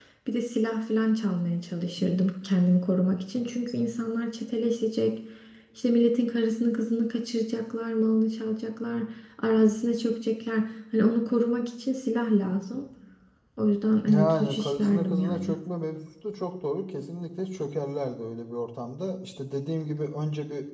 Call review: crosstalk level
present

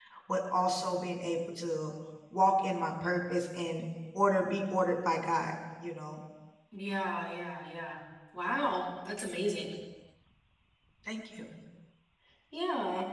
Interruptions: none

